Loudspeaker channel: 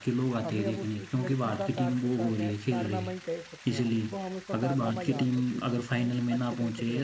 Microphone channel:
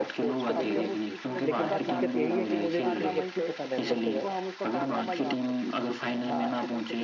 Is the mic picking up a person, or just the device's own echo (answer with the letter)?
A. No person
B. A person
B